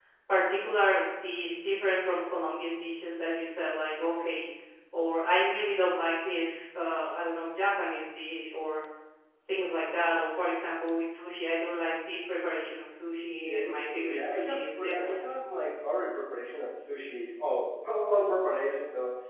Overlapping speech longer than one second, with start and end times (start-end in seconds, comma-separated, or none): 13.4-15.2